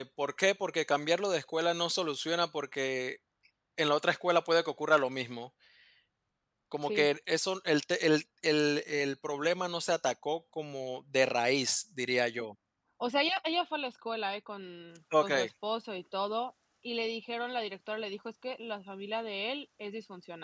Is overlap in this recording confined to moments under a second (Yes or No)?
Yes